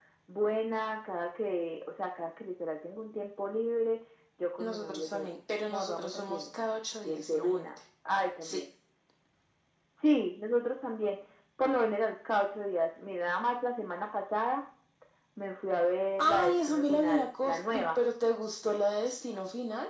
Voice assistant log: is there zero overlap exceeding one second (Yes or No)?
No